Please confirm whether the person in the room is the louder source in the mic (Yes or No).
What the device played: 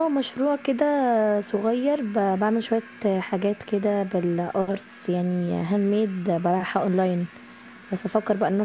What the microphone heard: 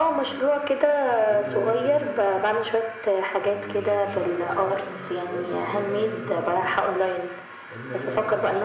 No